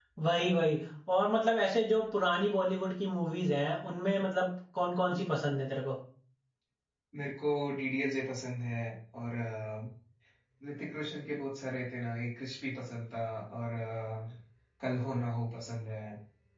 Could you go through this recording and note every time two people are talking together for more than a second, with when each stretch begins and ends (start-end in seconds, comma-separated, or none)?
none